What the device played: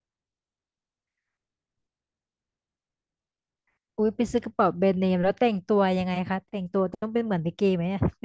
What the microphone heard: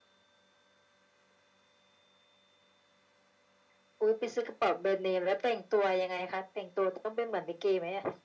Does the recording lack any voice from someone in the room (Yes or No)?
Yes